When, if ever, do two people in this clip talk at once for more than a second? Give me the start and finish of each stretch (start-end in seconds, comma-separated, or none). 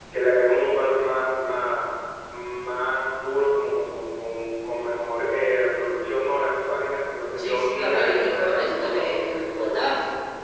7.4-9.8